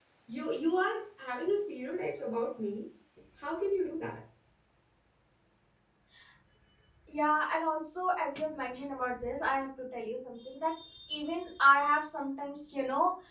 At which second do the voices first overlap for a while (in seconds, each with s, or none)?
none